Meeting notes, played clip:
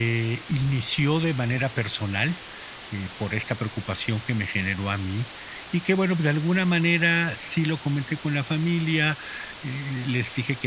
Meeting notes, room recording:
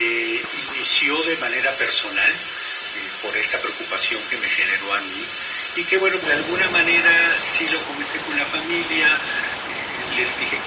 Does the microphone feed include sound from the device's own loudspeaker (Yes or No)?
Yes